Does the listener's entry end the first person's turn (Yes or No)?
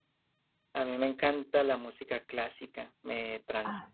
No